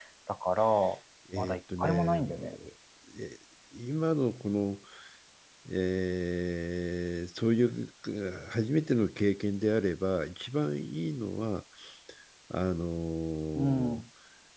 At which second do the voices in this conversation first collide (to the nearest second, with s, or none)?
1 s